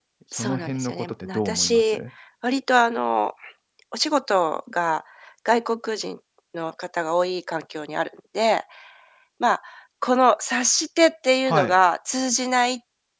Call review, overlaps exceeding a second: present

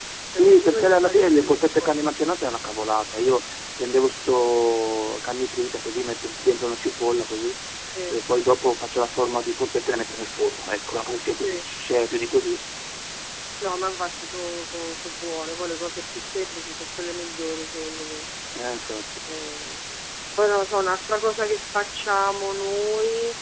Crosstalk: present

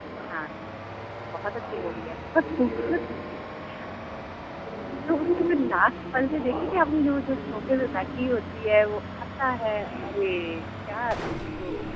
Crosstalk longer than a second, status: present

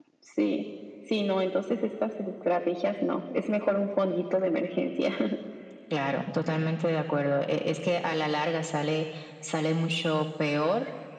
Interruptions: none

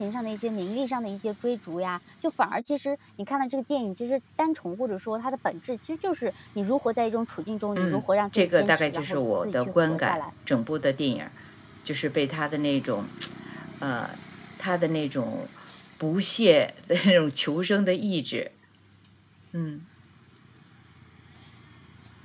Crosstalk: present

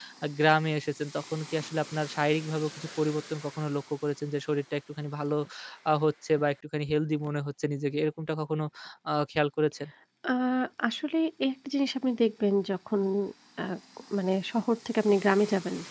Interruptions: none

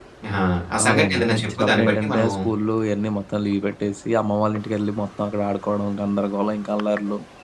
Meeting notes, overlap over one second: present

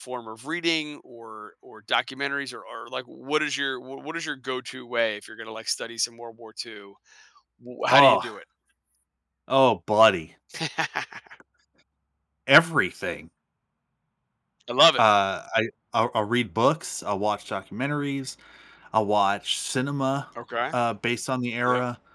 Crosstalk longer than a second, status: none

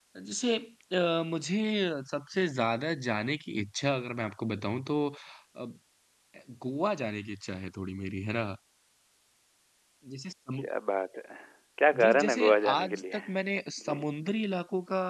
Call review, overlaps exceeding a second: present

